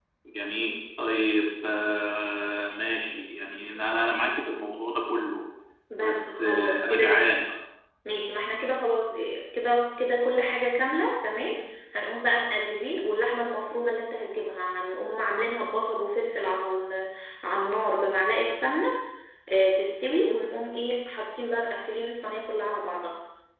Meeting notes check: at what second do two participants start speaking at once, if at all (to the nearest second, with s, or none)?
6 s